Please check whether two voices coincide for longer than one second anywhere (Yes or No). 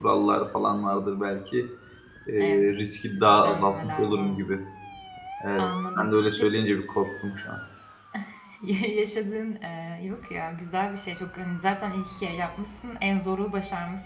Yes